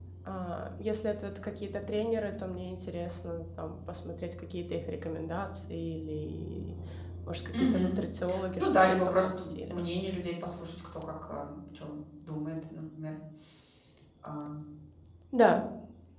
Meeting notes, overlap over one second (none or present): present